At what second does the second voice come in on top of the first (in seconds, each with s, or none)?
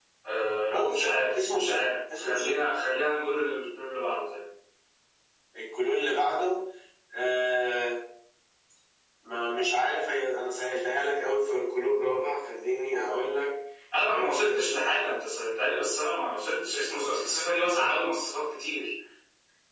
0.7 s